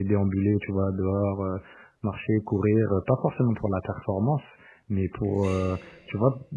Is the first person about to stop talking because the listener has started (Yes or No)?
No